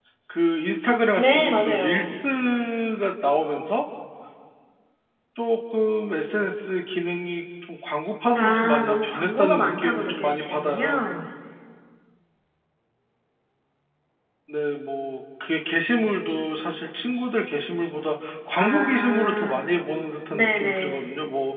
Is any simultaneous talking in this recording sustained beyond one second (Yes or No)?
Yes